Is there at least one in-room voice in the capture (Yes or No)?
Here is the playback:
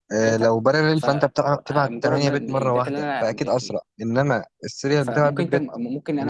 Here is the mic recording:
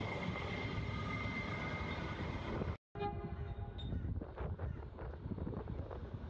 No